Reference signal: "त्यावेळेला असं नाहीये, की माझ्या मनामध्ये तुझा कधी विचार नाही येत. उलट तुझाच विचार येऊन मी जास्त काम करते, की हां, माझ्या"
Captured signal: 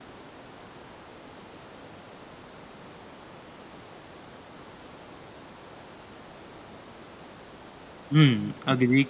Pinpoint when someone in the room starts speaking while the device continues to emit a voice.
8.1 s

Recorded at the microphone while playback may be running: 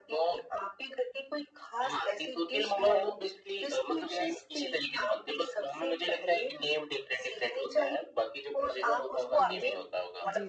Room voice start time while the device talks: 9.3 s

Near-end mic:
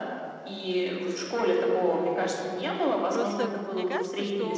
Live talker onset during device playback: 3.1 s

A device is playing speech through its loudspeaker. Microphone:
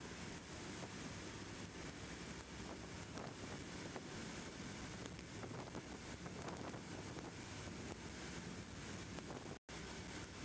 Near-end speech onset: none

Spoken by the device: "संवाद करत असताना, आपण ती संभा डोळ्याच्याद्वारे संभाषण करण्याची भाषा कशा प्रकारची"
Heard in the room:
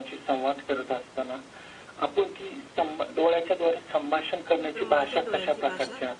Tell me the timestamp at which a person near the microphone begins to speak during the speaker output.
4.7 s

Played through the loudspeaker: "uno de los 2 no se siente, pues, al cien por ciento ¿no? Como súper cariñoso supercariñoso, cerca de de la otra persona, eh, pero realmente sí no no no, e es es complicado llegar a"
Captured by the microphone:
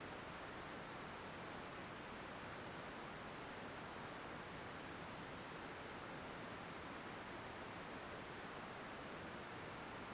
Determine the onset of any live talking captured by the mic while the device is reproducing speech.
none

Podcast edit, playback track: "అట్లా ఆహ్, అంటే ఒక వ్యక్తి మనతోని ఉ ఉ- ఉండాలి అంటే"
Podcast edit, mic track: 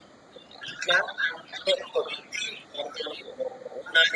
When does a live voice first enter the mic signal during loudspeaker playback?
none

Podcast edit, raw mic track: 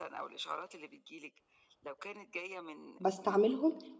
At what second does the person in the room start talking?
3.0 s

